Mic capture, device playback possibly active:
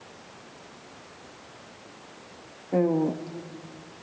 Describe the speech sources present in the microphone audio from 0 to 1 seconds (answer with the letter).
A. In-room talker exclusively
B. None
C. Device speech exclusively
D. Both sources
B